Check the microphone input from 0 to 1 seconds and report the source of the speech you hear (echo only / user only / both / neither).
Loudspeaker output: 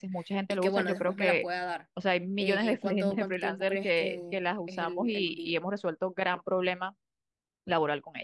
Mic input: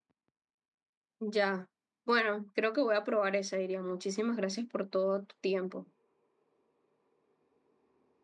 neither